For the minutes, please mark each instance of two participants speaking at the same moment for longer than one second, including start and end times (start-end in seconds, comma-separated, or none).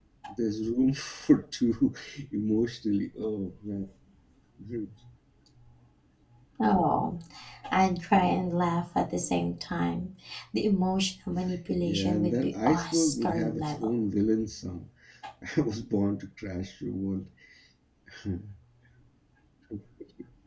11.8-13.9